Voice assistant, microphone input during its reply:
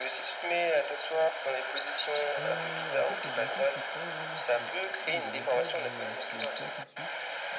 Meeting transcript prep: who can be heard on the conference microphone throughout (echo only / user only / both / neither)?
both